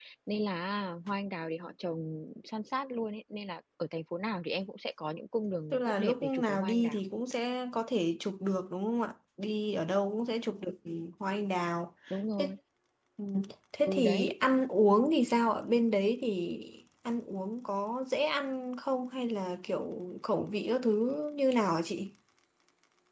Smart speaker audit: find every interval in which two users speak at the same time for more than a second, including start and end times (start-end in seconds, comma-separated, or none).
5.7-7.0